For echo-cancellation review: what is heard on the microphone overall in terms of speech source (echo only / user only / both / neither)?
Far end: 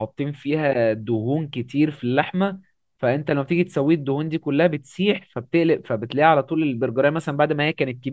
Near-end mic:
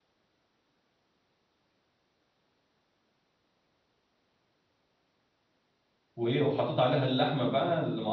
user only